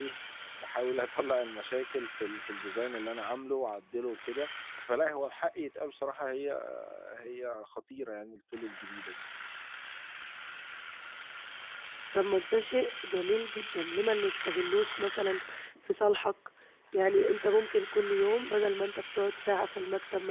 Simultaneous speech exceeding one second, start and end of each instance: none

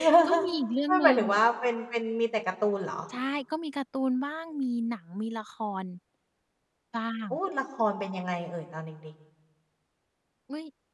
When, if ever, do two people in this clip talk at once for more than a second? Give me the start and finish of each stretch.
none

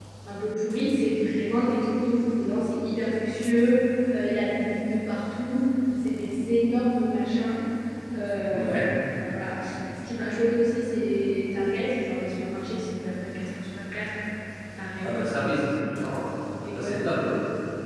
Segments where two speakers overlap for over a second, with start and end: none

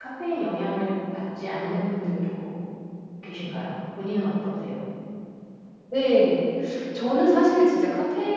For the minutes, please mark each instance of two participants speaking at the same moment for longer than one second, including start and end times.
none

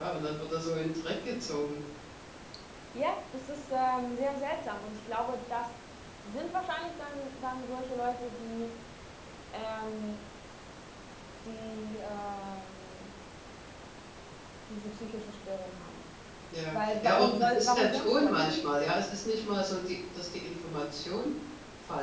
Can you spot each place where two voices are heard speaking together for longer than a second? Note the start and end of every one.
16.7-18.9

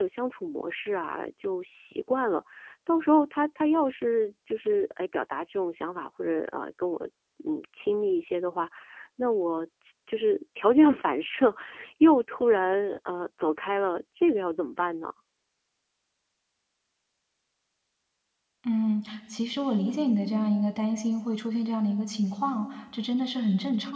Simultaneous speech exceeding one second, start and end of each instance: none

